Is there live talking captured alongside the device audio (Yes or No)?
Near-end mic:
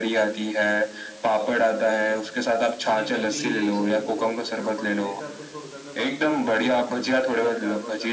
Yes